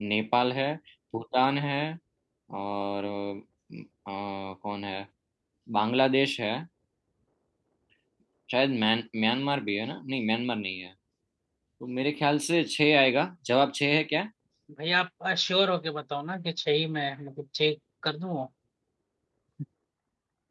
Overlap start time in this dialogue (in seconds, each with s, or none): none